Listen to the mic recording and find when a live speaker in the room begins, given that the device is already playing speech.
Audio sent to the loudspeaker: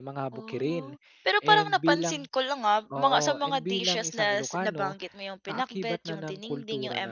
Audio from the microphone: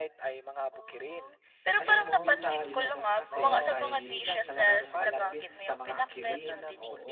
1.8 s

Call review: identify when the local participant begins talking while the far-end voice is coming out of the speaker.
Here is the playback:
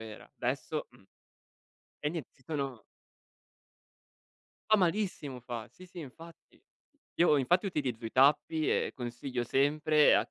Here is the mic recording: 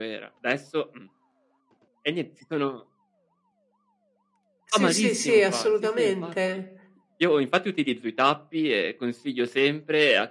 4.6 s

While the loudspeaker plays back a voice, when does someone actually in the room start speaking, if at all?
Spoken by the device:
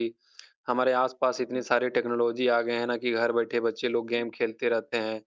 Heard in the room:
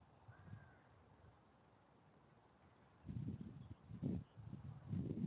none

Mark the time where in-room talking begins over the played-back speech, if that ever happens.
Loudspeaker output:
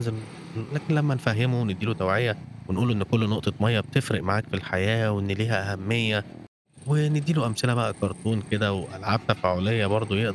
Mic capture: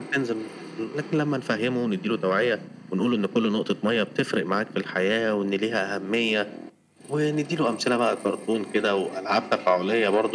none

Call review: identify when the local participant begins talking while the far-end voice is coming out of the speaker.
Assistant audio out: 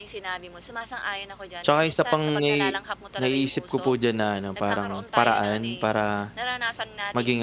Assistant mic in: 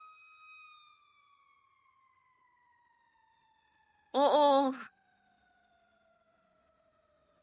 4.1 s

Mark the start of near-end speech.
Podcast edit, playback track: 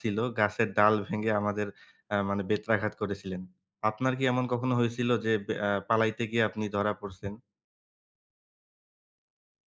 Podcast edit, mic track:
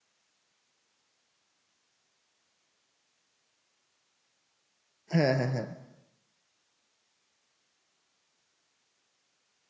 5.1 s

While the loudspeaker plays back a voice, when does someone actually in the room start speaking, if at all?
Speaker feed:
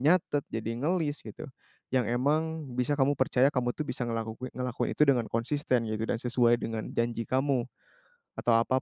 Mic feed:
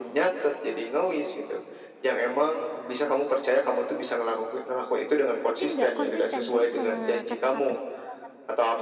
5.5 s

